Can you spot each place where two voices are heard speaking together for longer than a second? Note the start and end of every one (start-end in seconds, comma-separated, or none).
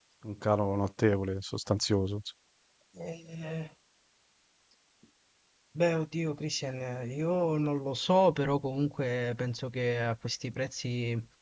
none